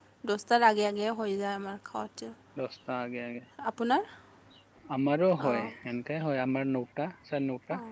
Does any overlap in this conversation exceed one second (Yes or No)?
No